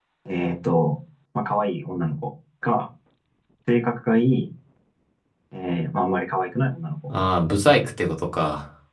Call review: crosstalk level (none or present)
none